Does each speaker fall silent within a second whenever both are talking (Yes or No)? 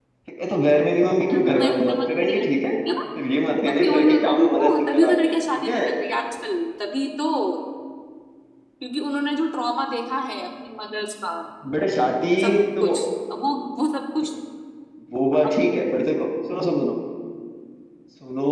No